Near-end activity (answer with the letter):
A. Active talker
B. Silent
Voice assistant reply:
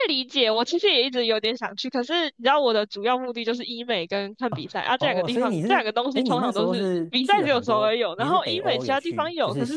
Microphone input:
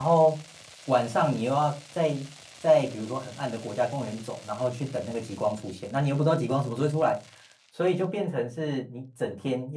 A